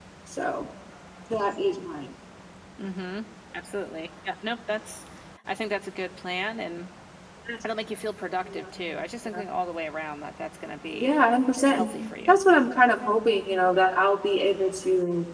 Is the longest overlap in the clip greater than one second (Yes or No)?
No